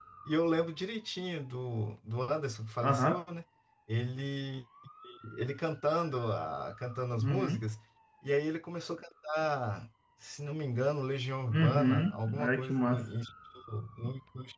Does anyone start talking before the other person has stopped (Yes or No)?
Yes